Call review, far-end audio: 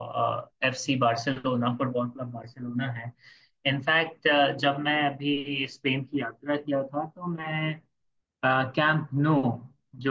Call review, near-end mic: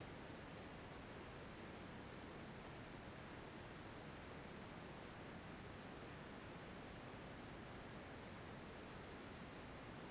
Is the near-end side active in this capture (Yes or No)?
No